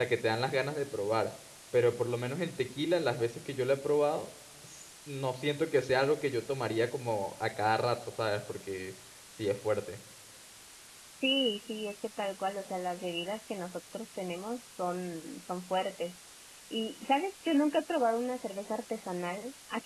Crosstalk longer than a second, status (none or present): none